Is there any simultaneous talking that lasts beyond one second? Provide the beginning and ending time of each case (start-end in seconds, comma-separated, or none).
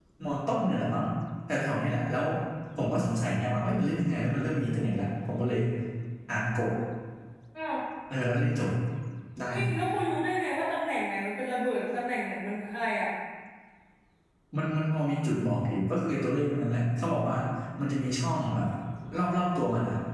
none